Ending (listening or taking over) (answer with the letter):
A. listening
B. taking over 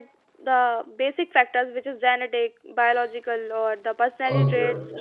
B